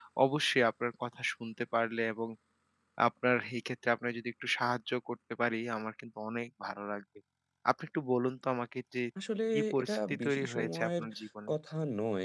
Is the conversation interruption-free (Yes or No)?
No